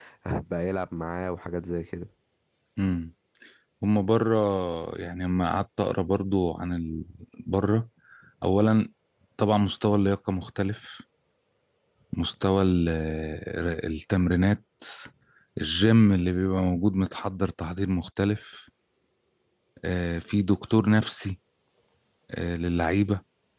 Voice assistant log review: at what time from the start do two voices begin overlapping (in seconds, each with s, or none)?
none